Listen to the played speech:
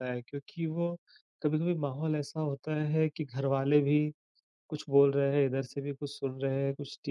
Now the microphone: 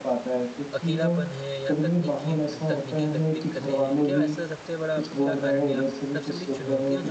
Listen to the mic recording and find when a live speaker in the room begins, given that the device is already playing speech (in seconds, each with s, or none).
0.7 s